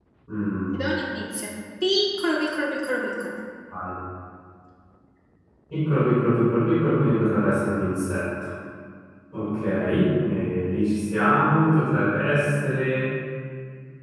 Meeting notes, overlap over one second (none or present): none